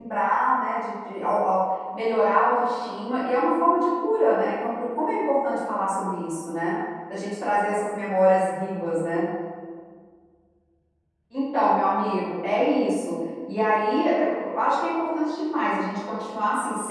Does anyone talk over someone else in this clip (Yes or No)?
No